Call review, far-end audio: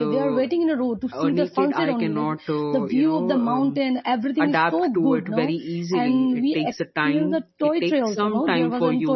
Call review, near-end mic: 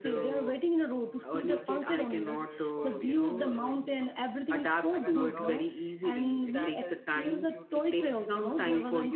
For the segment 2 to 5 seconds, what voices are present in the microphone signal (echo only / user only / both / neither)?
both